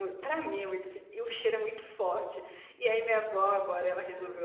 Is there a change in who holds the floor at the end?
No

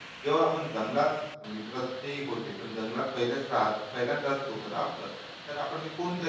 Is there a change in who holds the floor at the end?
No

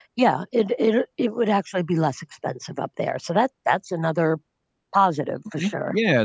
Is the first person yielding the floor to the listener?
Yes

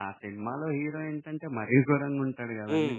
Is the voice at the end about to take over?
Yes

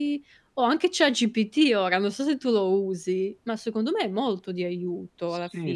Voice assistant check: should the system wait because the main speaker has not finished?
No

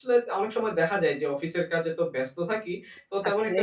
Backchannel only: Yes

